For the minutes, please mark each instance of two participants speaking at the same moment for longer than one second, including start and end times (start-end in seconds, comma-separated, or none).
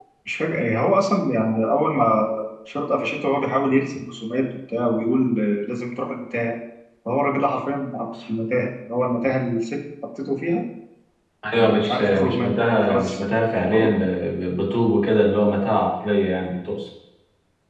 11.6-13.2